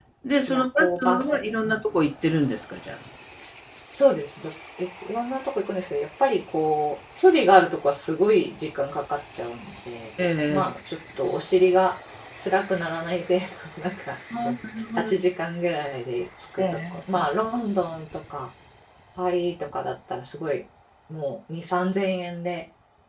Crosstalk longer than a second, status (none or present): present